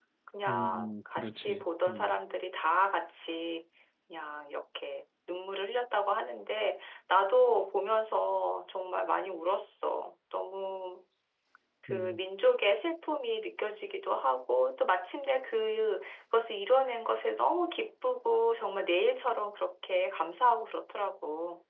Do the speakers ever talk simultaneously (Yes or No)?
Yes